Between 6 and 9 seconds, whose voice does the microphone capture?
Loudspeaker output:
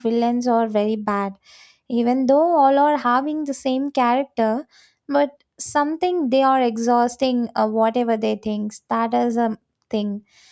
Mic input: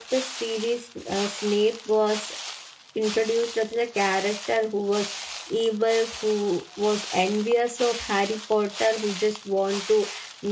user only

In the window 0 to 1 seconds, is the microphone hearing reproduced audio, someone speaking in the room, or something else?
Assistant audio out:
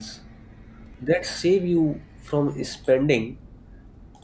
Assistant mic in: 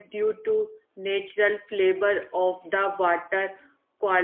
user only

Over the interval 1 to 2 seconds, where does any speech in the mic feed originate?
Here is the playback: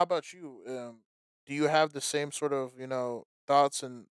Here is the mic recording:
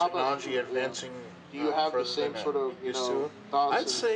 both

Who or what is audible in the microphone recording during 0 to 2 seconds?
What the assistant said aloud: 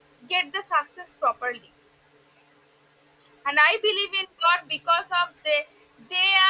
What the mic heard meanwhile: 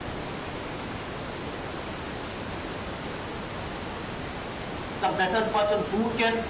neither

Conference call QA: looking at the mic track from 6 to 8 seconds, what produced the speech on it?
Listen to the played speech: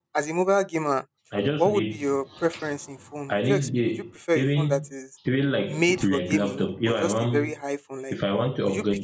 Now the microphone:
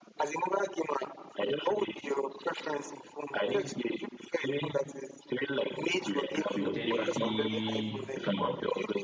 both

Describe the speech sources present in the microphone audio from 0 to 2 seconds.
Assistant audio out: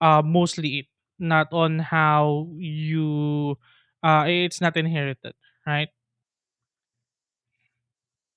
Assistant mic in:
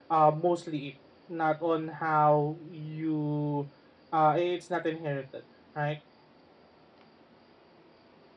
echo only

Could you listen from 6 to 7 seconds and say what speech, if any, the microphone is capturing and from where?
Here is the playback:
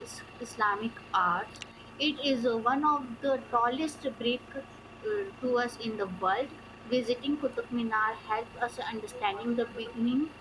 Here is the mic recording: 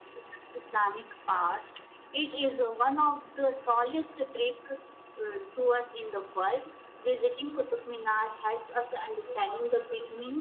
echo only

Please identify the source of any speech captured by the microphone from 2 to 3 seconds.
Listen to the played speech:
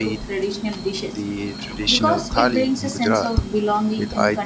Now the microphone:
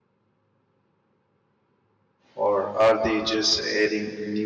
user only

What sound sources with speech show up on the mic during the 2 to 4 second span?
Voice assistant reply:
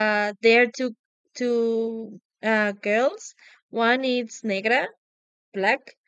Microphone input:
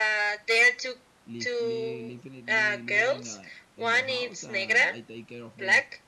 both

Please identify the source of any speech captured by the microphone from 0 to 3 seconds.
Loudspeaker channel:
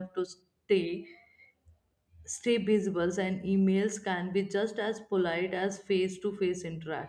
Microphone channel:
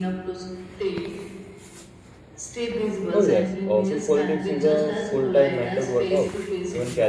echo only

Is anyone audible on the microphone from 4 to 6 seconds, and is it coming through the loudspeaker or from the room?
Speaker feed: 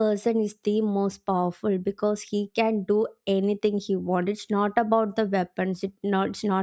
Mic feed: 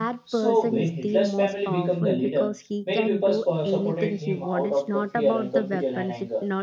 both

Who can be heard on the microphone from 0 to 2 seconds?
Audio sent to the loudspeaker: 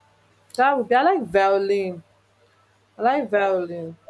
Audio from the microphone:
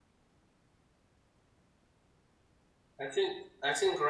neither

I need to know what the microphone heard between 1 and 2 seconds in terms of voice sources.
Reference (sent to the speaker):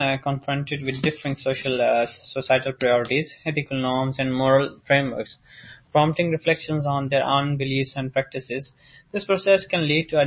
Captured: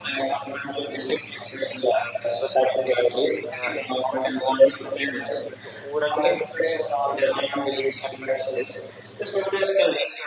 echo only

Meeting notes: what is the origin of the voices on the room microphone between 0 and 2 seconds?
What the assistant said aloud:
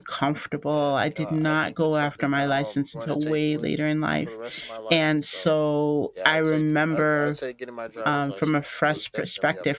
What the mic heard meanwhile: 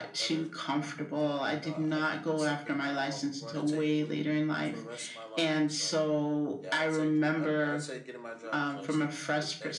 echo only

